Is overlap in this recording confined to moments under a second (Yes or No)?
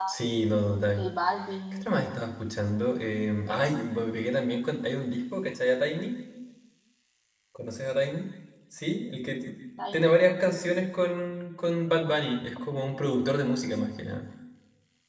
Yes